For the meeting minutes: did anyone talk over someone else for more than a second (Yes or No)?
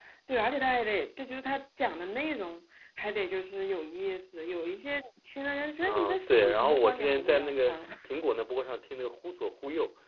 Yes